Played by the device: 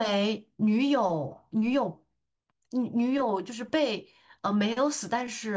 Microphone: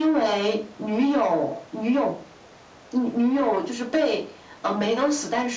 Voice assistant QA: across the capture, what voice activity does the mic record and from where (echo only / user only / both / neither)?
echo only